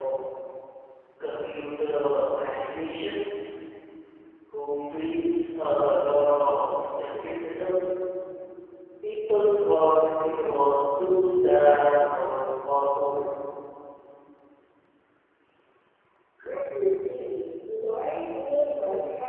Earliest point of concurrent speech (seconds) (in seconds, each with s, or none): none